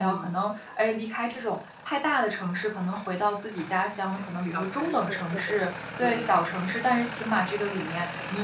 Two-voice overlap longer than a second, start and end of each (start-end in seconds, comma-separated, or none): 4.2-5.5